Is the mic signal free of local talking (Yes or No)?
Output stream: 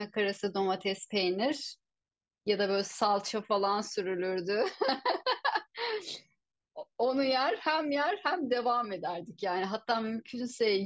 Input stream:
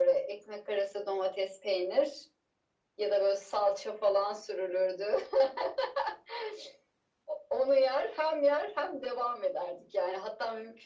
Yes